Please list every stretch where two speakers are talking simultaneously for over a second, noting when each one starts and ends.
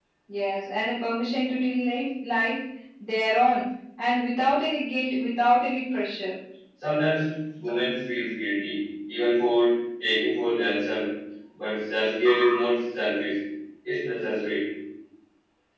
none

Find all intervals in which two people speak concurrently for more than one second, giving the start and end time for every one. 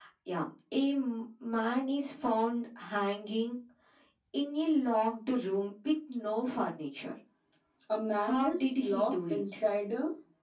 8.2-9.6

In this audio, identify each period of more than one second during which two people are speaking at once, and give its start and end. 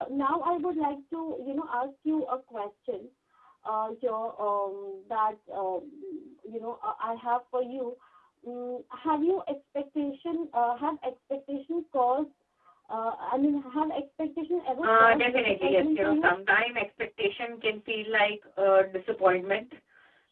14.8-16.3

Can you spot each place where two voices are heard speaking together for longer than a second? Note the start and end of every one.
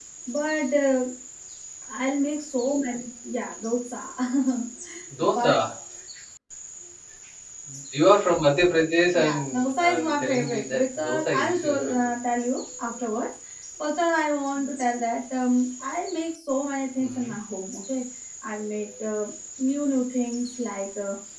9.1-12.1

